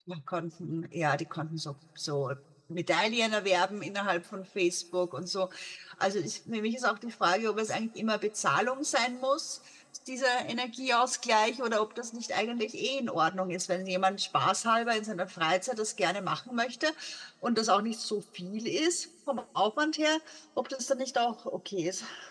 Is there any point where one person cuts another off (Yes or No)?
No